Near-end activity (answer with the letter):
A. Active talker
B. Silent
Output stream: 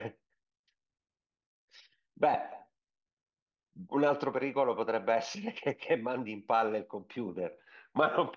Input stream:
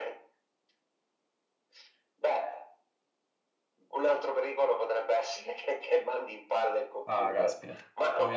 A